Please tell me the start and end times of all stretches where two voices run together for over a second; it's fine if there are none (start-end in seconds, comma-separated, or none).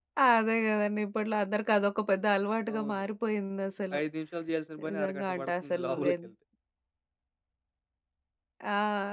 4.9-6.2